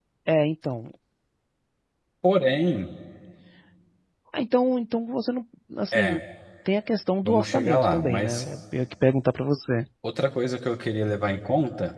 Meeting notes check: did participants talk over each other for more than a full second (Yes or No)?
Yes